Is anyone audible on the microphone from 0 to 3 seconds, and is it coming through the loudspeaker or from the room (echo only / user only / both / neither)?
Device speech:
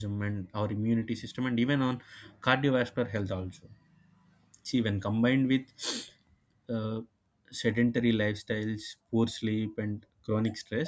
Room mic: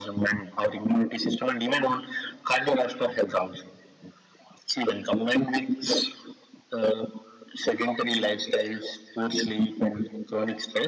echo only